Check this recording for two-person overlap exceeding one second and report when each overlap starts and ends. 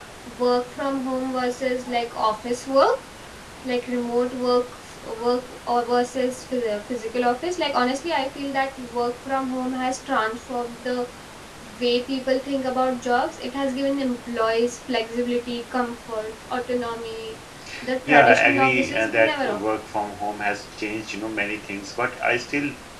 18.1-19.6

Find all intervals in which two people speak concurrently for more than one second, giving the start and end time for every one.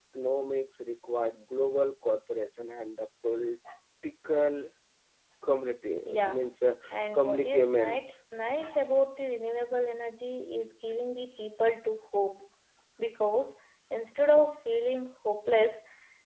6.9-8.1

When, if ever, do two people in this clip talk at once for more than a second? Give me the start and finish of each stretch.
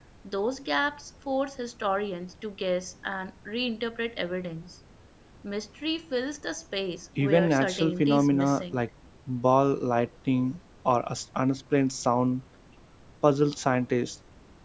7.2-8.8

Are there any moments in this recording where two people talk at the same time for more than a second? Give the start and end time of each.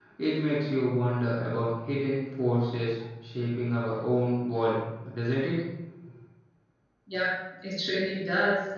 none

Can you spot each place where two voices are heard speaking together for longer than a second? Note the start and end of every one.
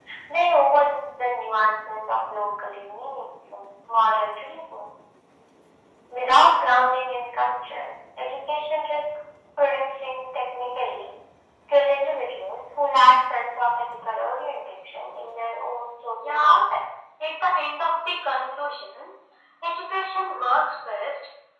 none

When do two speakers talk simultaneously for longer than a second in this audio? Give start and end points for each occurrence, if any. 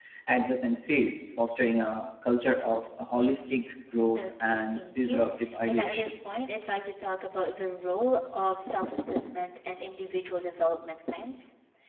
4.2-6.1

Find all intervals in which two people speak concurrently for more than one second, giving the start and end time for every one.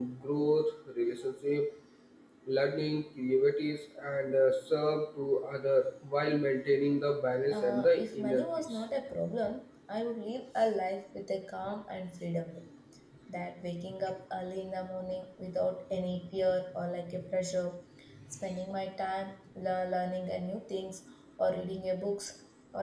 7.5-8.8

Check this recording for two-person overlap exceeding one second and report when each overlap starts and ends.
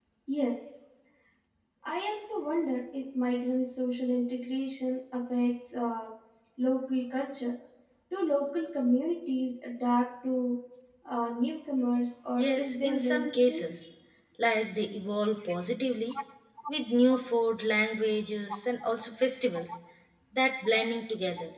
12.4-13.7

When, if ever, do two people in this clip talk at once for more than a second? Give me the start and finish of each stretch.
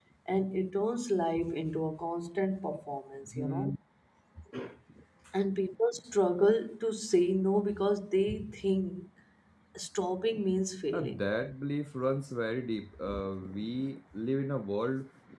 none

